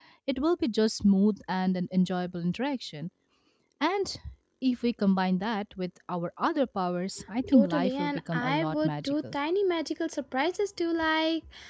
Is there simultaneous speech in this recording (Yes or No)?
Yes